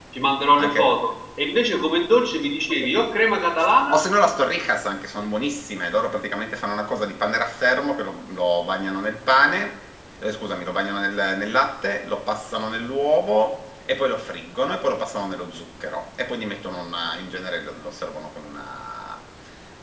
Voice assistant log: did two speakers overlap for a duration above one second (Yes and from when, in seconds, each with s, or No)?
No